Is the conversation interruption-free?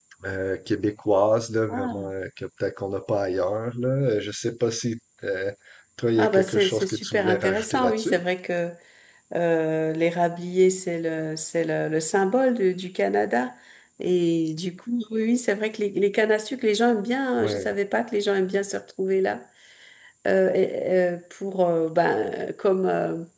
No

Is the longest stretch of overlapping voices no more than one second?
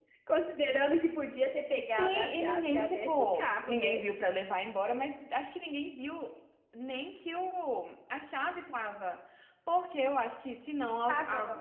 No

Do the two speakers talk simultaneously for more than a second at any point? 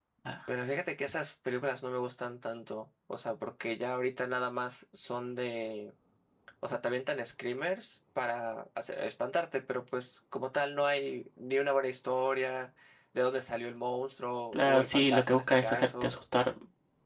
Yes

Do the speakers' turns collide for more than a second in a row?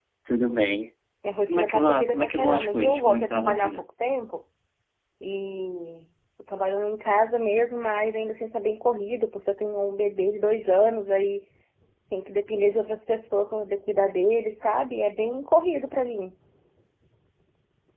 Yes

